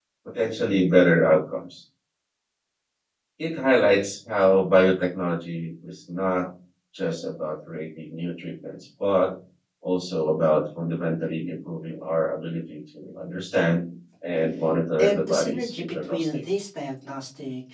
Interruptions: present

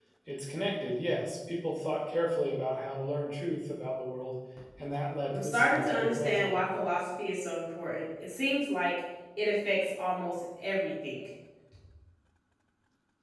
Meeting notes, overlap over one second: present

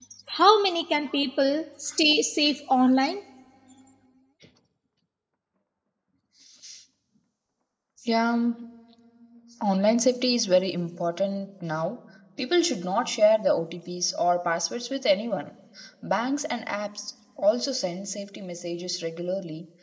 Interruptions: none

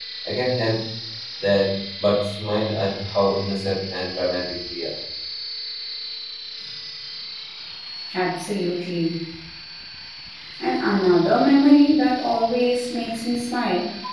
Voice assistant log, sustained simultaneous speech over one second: none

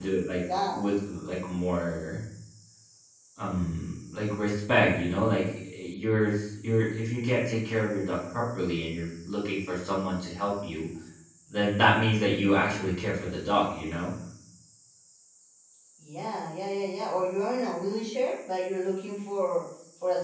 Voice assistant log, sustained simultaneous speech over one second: none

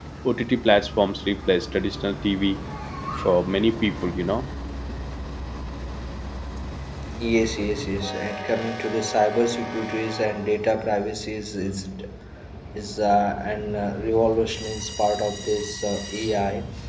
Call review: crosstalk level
none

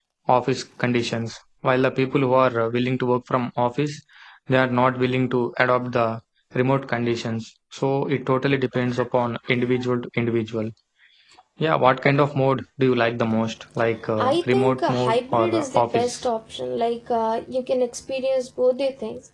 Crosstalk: present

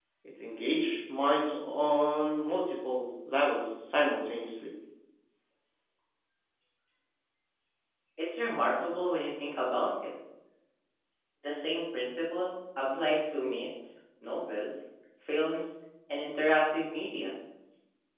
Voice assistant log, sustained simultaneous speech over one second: none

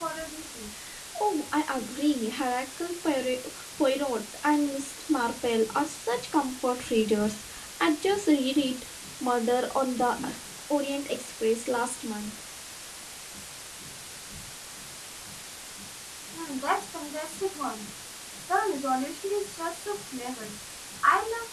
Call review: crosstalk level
none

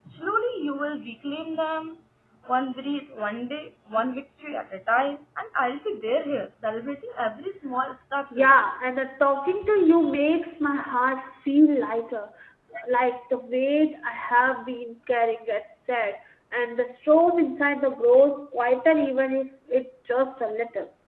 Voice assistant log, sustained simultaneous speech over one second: none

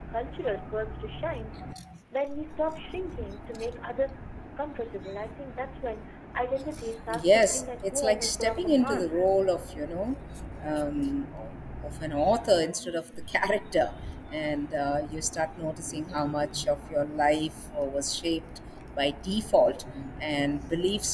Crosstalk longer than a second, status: present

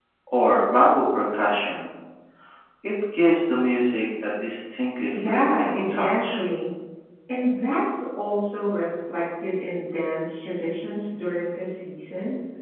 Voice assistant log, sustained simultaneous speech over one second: present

